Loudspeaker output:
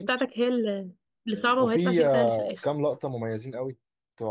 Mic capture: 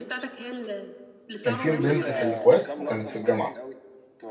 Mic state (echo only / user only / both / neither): both